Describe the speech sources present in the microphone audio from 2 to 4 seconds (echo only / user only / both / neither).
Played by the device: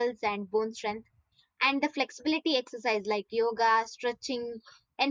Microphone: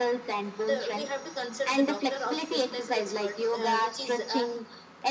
both